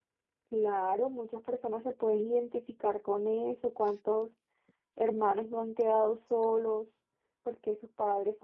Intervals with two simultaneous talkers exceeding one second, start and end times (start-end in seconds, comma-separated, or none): none